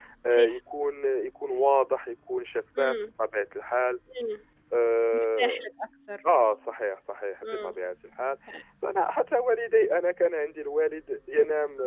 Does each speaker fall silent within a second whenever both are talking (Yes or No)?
Yes